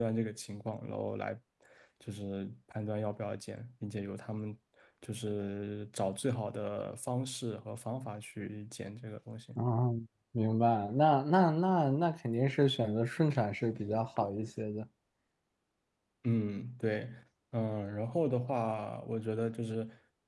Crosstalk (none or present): none